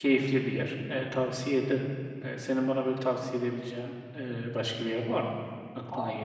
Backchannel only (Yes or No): No